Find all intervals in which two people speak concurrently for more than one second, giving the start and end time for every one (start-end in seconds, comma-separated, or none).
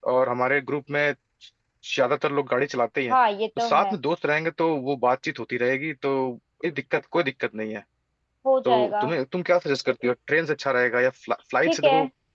none